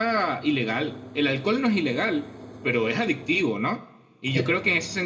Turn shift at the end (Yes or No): No